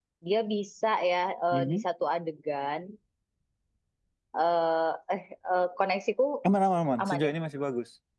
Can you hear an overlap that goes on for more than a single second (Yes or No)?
No